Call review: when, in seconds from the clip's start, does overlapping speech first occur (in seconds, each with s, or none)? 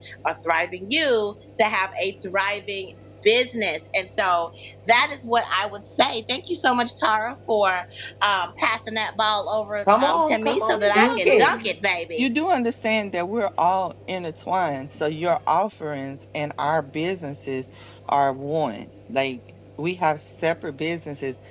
9.9 s